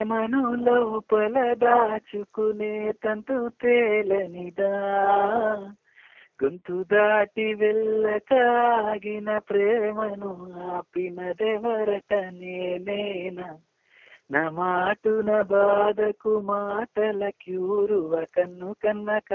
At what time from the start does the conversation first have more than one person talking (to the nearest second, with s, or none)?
none